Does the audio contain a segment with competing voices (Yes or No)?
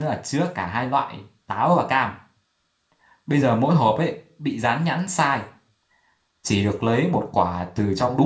No